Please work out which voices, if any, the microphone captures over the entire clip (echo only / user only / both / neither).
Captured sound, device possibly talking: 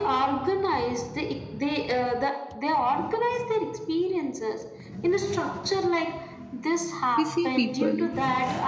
both